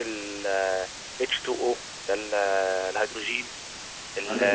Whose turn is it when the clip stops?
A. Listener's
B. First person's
A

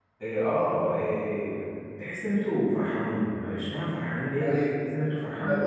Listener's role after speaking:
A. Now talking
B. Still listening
A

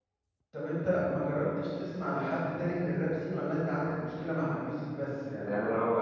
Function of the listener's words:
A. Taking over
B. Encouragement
A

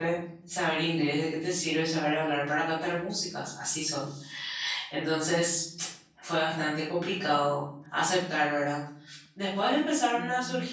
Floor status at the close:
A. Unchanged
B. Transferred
A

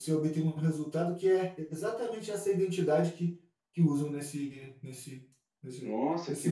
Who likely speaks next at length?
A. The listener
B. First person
A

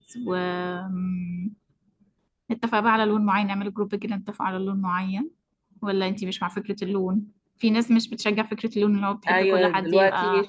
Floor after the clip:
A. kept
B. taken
B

